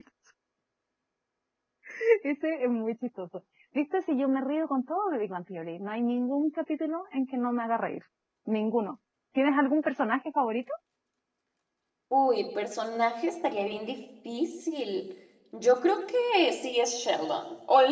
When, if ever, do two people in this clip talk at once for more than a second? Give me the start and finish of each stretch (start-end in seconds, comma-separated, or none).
none